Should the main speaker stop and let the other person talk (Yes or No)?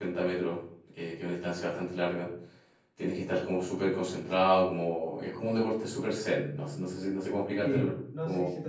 Yes